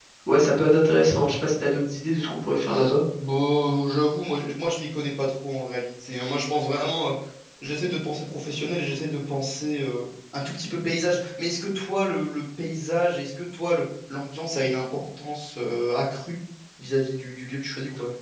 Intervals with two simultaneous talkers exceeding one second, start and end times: none

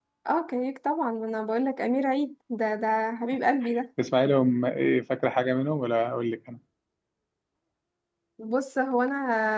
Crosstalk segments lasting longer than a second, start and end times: none

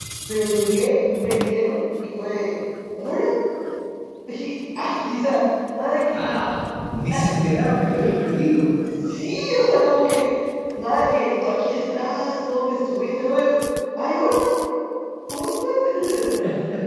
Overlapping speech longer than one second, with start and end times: none

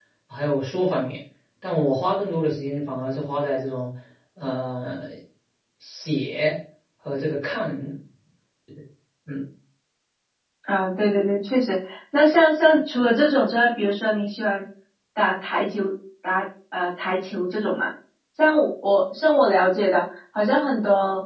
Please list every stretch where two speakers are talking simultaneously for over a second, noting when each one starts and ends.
none

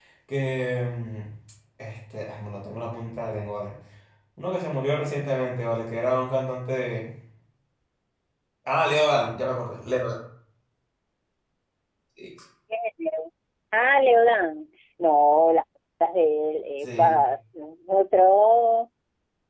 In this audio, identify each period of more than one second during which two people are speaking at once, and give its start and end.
none

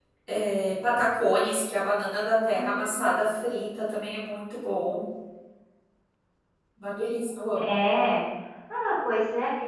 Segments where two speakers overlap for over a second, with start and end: none

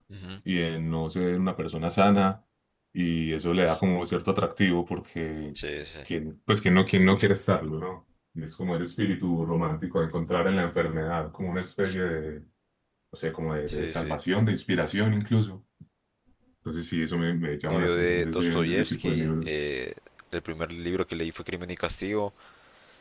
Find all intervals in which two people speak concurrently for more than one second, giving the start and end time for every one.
17.7-19.5

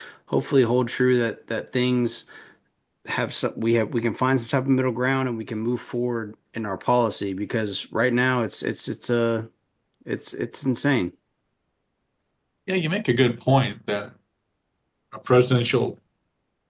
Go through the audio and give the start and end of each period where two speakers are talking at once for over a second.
none

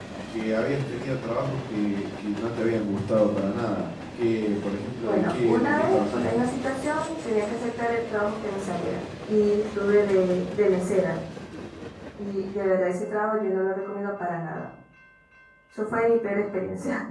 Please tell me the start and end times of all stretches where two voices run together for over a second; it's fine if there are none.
5.0-6.5

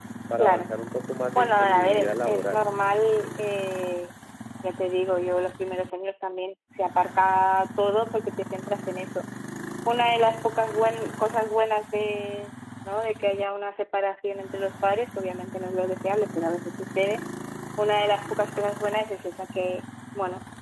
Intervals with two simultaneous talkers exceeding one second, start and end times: 1.4-2.8

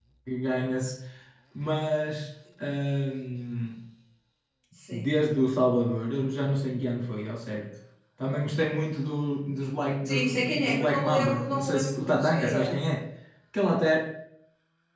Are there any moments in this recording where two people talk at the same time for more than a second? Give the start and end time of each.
10.1-12.8

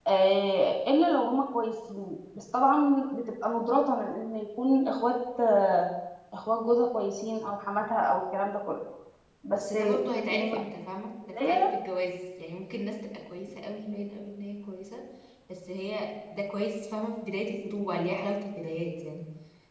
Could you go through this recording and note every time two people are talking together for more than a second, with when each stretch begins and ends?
none

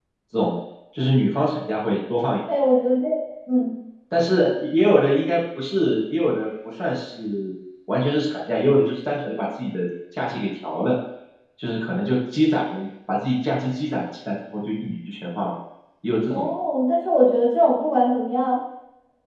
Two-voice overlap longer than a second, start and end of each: none

